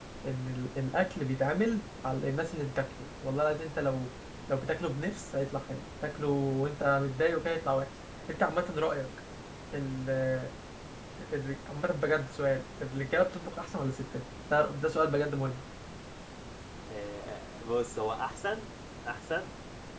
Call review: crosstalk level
none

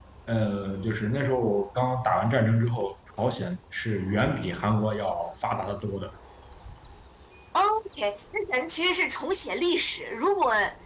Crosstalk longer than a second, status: none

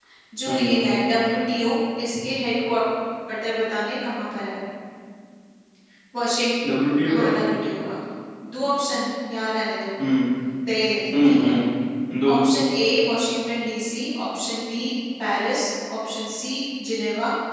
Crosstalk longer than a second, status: none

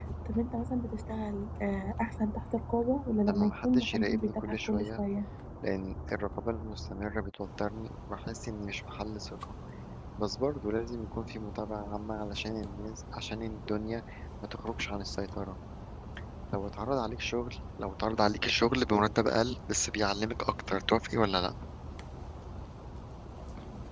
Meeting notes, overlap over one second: present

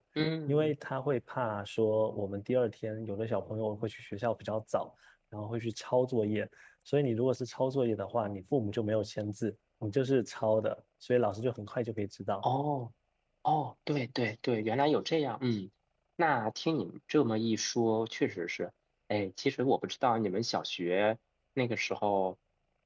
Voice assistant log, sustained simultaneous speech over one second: none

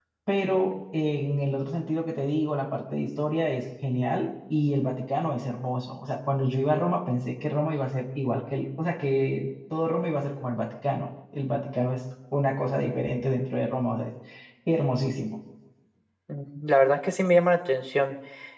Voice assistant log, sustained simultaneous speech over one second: none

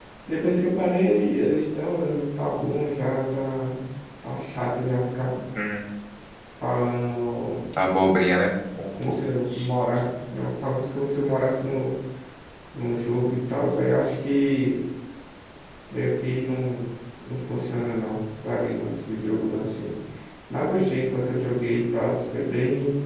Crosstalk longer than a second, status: none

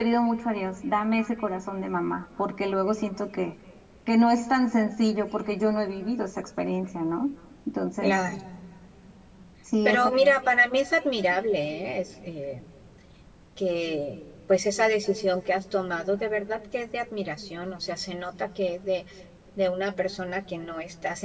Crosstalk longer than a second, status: none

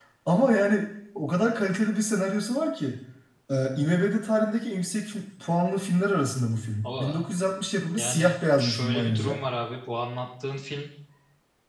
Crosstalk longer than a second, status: present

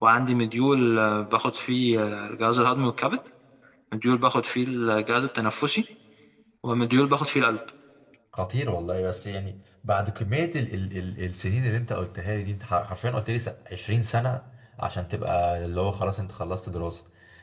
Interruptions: none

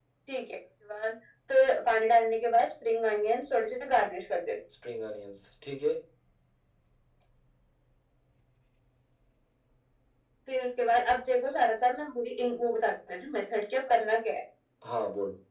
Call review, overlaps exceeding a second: none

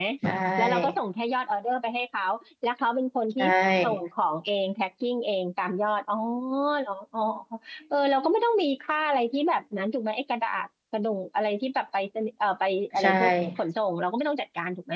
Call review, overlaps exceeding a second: none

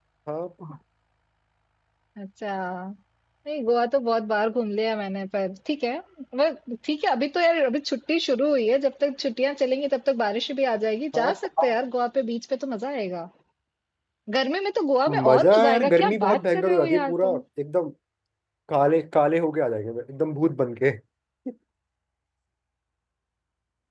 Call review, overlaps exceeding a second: present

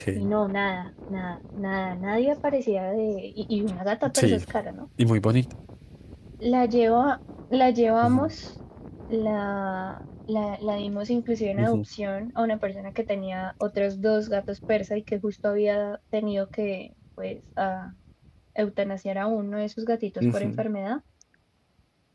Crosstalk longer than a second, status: none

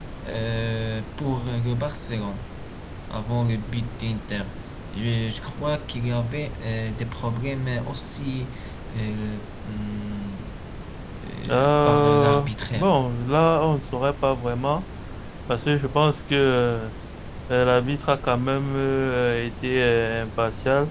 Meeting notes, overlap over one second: present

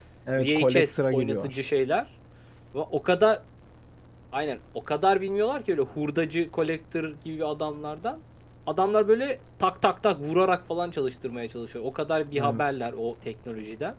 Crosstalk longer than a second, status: present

